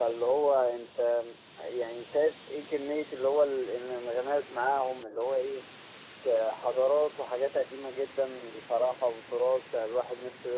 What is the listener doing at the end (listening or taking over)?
listening